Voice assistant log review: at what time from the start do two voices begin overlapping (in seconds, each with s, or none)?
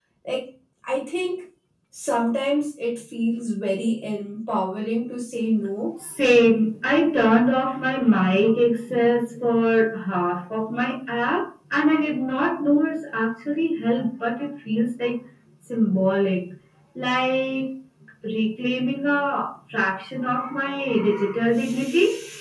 none